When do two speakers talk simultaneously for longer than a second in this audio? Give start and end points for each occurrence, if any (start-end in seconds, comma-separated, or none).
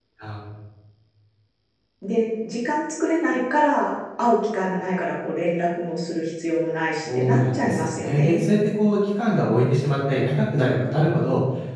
7.2-8.4